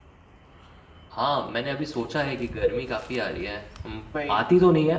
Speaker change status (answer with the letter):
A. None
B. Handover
A